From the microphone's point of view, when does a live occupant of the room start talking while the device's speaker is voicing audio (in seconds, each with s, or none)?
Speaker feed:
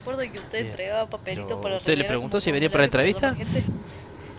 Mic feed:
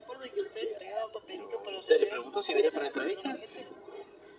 none